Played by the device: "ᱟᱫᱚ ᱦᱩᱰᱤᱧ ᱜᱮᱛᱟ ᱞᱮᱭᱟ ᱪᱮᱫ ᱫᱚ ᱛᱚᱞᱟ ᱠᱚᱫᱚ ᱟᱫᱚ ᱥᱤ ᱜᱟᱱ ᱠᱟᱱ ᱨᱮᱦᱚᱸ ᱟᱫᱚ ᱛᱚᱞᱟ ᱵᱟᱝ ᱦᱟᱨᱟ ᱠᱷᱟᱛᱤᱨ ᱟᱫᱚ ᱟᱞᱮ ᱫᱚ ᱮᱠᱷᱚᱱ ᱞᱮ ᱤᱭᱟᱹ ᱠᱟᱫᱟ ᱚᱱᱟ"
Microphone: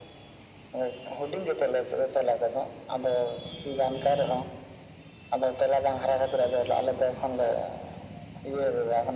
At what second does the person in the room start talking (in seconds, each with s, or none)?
none